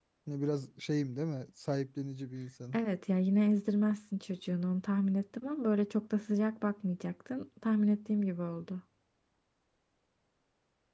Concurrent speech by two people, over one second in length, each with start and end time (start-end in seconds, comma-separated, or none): none